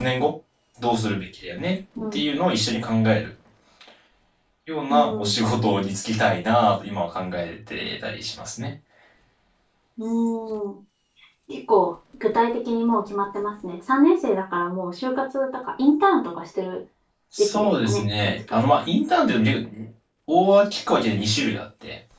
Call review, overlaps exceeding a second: present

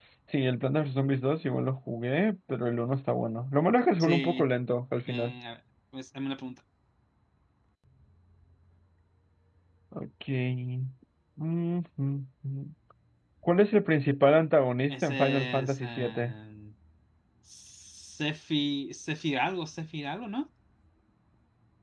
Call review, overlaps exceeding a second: present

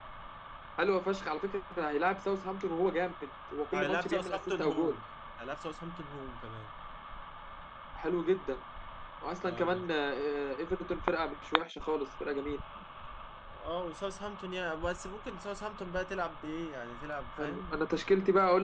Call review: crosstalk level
present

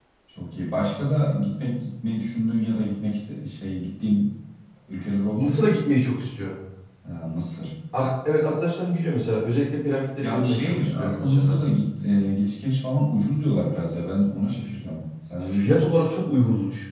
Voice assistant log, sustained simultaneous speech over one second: present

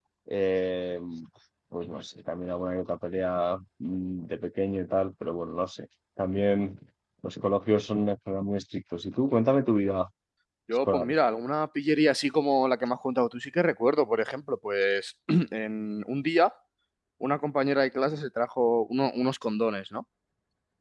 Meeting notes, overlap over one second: none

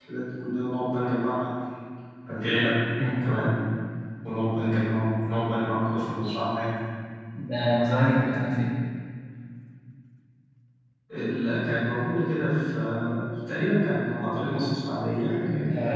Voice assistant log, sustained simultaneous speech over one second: none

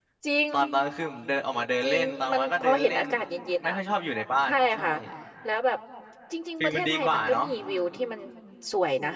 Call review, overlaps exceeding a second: present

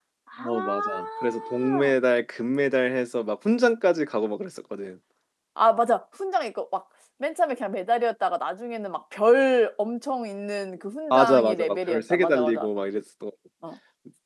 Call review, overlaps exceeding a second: present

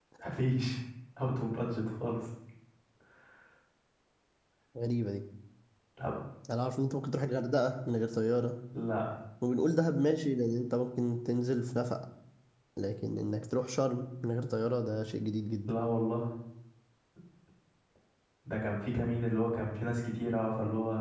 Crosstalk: none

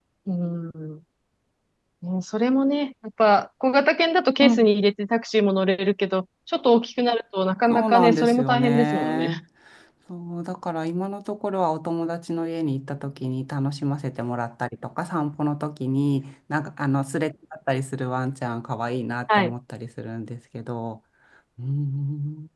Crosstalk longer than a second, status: present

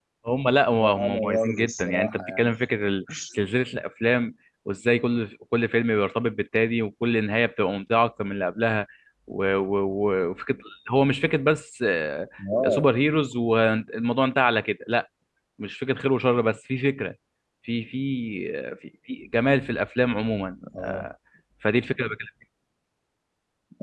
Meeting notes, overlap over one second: present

